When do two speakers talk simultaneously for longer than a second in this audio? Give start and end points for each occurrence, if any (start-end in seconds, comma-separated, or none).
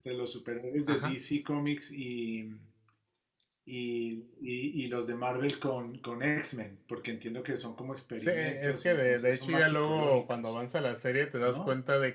8.2-10.5